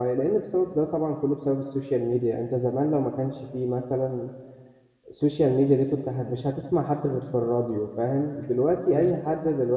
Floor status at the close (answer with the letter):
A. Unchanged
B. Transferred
A